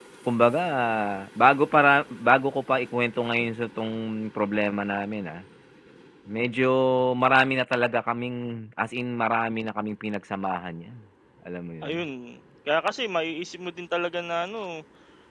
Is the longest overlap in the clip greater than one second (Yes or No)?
No